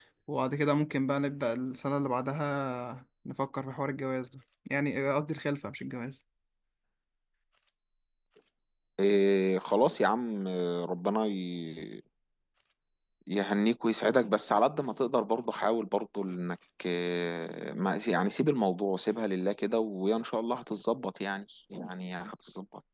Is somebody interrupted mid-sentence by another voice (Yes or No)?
No